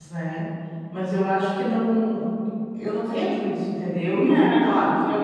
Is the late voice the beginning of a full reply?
No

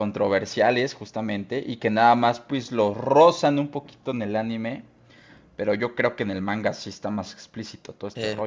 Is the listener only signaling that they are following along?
No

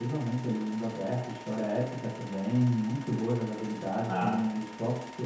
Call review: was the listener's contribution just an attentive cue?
Yes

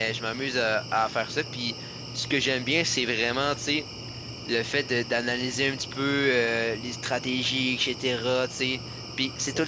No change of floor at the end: Yes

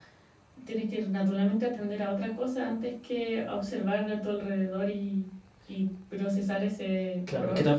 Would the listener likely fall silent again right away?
No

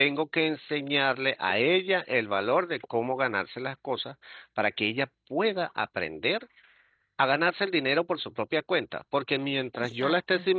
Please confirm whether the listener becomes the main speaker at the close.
No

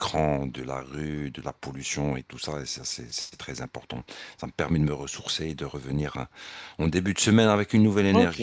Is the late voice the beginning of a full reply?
Yes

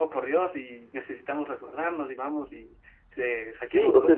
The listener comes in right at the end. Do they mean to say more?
Yes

